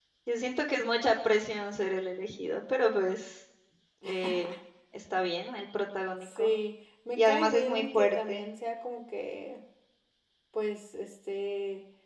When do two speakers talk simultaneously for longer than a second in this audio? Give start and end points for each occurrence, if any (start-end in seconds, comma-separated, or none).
7.2-8.4